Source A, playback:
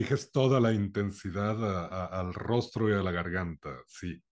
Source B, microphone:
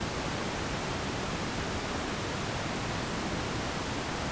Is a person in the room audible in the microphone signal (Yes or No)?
No